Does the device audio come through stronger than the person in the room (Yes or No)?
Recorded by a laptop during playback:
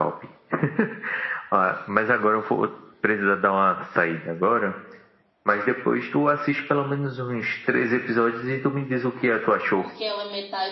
Yes